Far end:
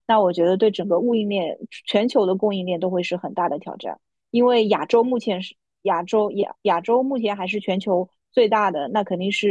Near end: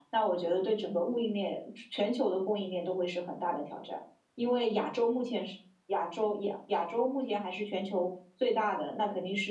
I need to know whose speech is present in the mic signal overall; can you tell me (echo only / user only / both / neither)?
echo only